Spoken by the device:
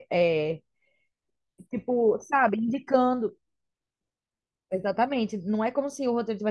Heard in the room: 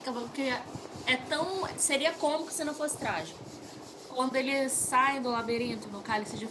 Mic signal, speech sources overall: user only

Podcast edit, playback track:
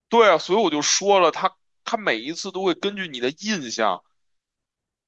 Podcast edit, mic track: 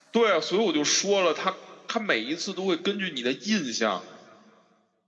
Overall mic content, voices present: echo only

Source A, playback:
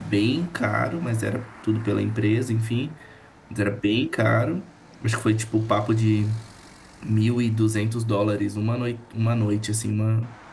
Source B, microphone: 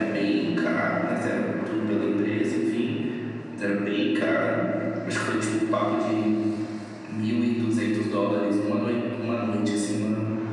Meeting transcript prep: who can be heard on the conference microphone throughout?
echo only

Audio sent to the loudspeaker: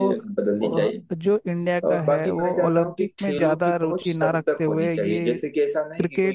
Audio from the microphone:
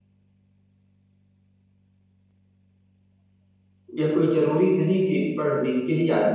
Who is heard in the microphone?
user only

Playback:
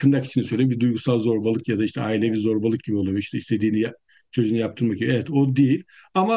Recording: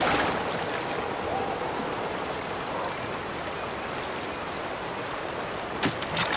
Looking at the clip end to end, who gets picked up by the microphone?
neither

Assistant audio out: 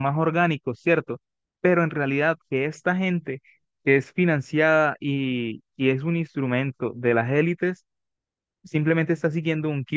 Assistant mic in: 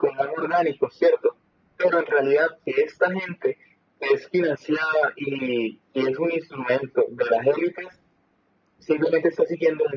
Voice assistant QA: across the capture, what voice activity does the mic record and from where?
echo only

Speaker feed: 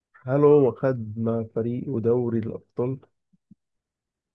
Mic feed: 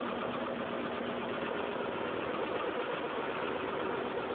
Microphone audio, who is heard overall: neither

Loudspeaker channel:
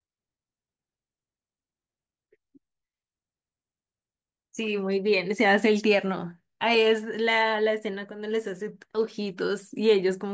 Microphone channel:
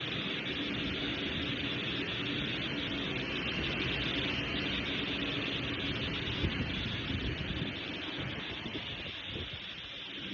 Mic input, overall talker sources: neither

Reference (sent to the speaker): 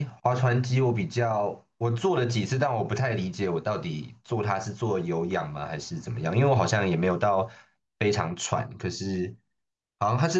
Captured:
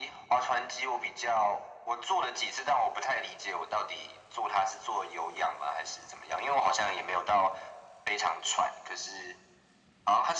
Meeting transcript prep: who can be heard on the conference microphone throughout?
echo only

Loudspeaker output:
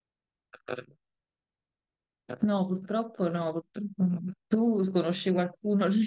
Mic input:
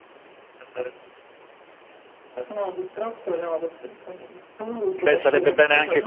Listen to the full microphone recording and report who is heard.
both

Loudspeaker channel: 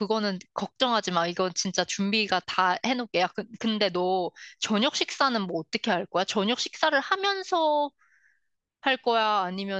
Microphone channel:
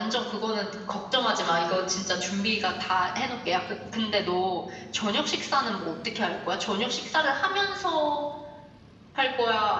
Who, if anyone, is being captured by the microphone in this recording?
echo only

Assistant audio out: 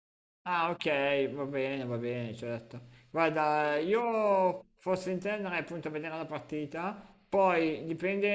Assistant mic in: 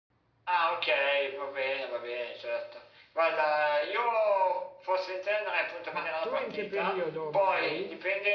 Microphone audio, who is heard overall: both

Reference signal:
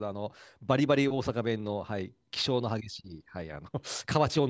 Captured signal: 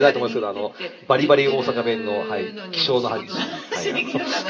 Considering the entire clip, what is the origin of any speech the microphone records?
both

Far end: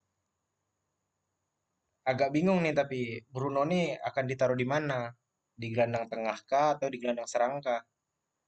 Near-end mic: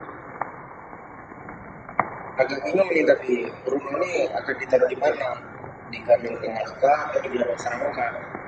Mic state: echo only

